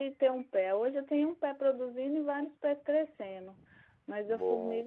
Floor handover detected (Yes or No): No